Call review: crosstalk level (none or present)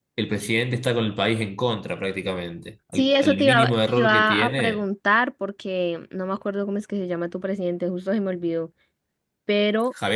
present